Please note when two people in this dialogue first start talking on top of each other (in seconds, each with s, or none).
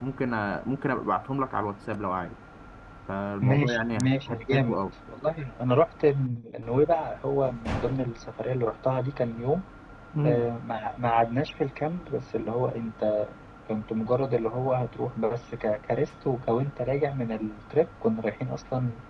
3.4 s